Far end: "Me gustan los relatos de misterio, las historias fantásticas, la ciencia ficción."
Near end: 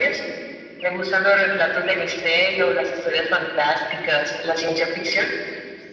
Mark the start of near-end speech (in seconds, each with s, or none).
none